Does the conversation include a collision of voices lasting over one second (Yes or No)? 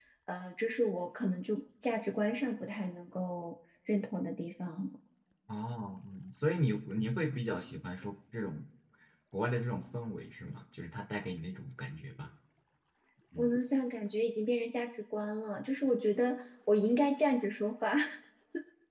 No